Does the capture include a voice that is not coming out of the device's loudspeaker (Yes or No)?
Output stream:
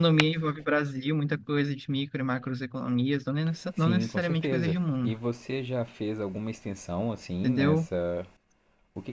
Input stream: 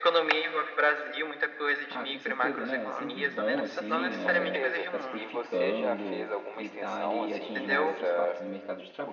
Yes